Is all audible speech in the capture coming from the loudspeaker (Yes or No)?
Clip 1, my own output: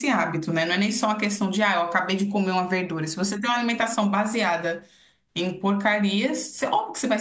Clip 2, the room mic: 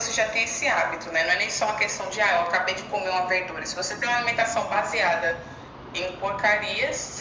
Yes